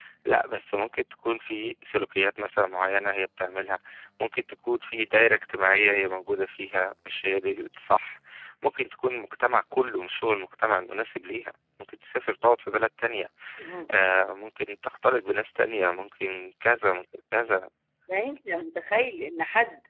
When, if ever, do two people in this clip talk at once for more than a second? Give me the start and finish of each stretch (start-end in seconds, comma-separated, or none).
none